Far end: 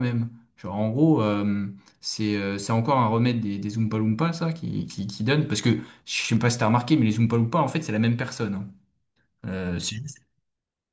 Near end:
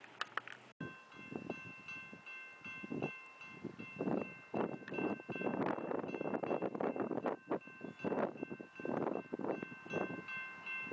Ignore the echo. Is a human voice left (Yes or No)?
No